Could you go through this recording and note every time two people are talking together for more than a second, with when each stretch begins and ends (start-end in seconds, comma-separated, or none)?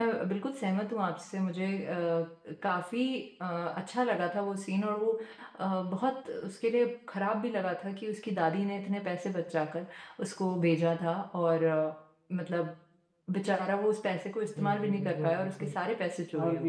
14.5-15.7